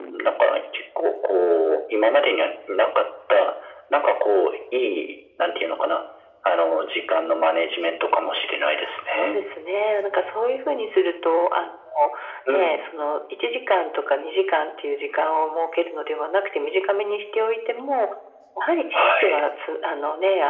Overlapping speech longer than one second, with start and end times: none

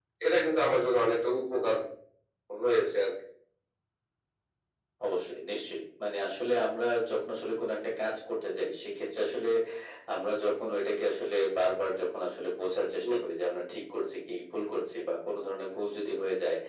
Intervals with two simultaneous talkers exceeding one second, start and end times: none

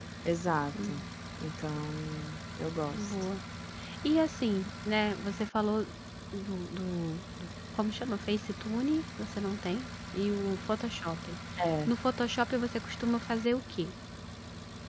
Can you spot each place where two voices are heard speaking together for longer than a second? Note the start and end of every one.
none

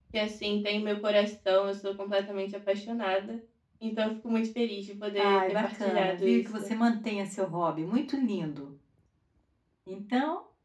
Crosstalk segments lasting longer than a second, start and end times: 5.2-6.7

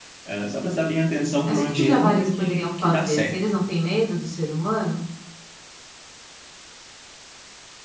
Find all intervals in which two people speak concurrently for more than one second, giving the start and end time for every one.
1.4-3.4

